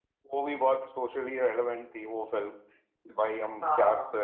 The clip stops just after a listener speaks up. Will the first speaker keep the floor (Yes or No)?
Yes